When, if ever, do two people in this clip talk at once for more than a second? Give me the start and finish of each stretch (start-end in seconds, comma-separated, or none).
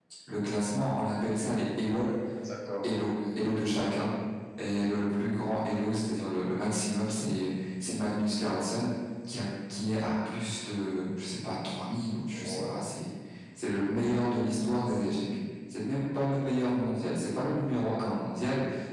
none